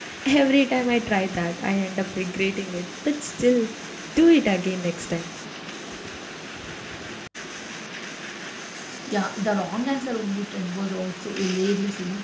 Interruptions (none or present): none